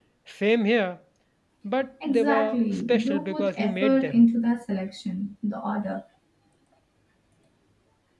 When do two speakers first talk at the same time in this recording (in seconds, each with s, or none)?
2.0 s